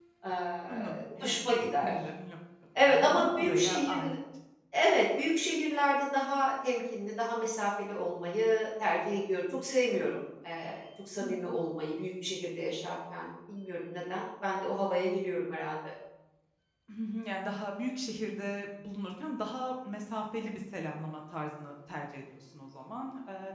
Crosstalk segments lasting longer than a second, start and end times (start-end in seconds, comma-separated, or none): 0.7-1.9, 2.8-4.1